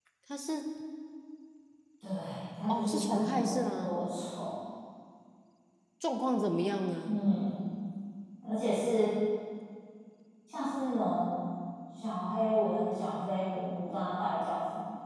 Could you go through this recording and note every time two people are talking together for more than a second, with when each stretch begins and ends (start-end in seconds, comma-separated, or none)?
2.7-4.0